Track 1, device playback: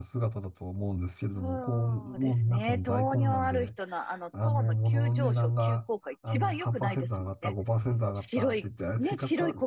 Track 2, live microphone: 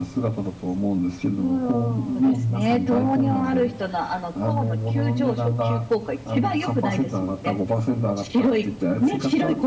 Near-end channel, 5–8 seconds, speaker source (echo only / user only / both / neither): echo only